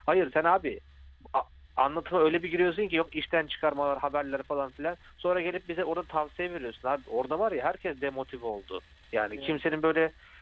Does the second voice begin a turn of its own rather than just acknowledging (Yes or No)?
No